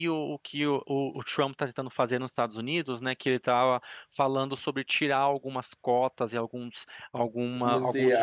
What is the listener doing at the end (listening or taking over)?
taking over